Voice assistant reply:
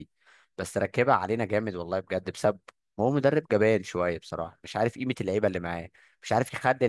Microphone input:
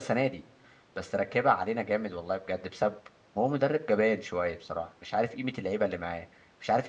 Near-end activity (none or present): none